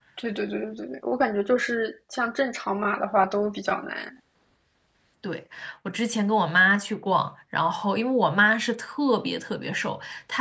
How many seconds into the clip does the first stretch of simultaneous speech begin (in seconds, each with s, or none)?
none